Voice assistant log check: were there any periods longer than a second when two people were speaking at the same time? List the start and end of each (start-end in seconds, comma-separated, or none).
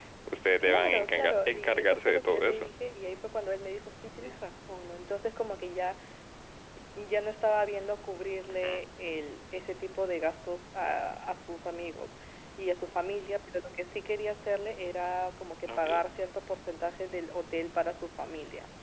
0.6-2.7